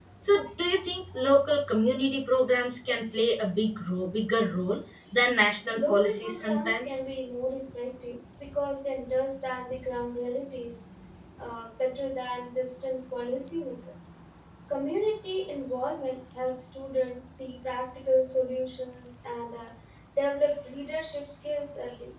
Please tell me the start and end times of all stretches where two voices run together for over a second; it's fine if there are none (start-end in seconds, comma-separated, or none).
5.7-7.0